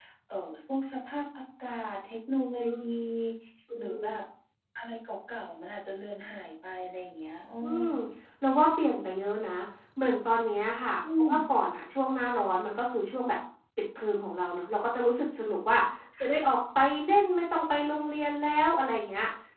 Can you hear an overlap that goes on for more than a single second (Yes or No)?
No